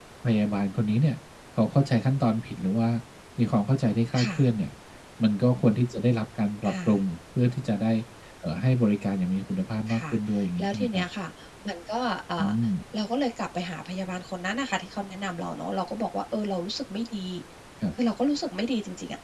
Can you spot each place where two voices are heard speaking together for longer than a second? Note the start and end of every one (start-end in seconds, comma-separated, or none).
none